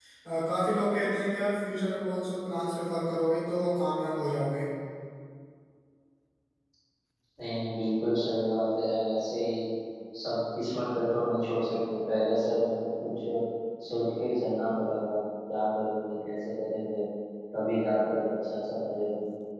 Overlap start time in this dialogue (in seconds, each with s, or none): none